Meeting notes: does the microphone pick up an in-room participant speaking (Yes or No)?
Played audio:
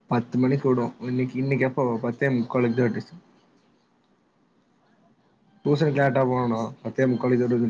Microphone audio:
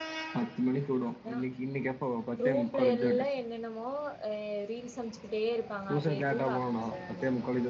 Yes